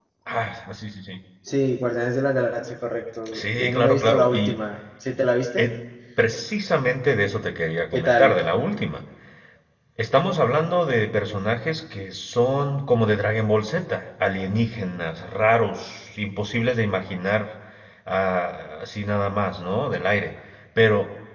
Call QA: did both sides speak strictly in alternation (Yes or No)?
No